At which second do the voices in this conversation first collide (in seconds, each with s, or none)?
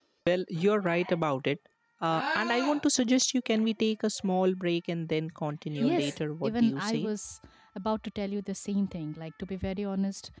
5.8 s